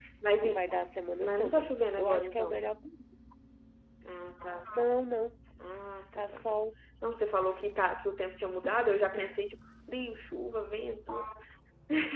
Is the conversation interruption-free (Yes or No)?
No